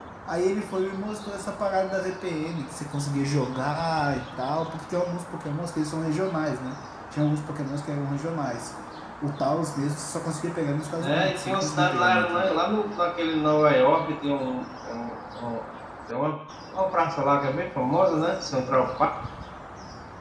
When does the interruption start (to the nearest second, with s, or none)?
11 s